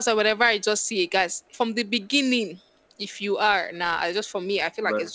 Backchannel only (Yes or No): No